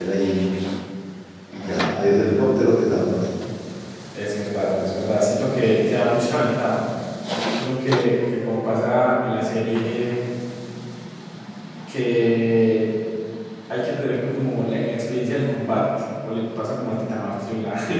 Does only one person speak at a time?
Yes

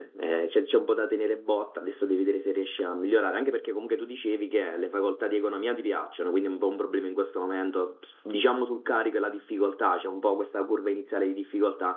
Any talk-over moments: No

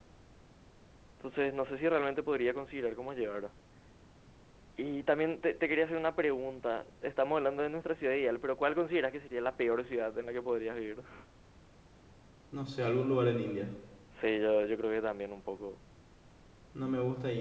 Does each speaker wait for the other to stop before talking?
Yes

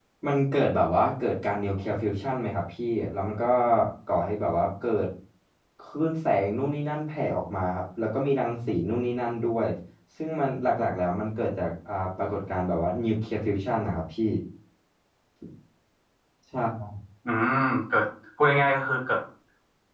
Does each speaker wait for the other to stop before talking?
Yes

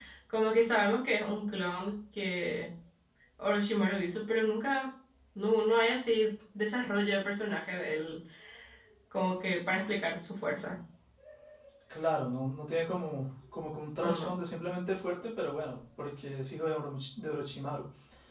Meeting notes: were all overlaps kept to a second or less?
Yes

